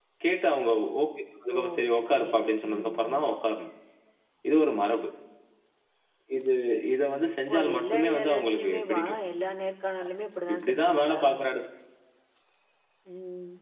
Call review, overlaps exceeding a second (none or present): present